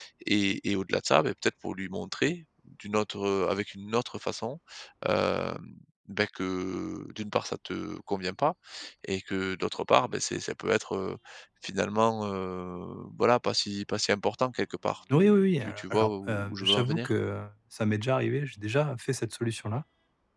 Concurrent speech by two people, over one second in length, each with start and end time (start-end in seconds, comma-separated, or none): 15.2-17.1